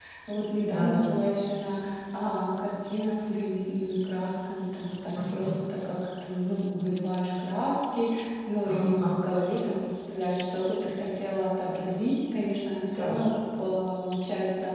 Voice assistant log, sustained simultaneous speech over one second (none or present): none